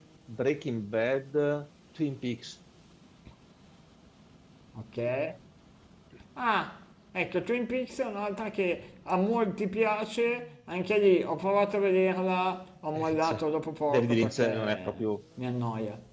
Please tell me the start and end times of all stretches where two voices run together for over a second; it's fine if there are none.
13.9-15.1

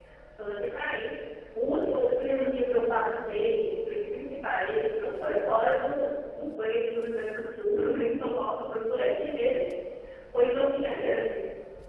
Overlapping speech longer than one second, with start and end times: none

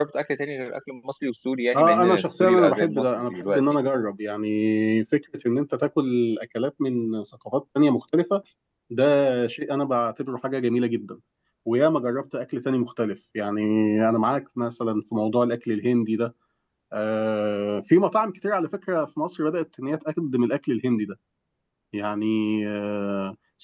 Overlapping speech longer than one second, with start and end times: 1.7-3.6

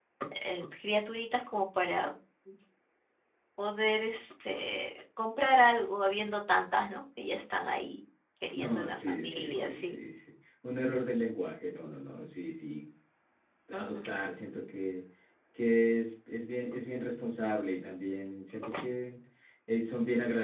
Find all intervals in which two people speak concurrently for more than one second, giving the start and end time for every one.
8.6-10.0

